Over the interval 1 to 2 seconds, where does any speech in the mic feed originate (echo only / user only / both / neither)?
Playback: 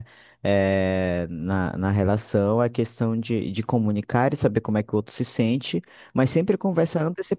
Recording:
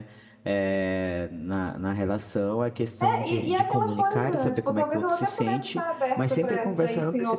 echo only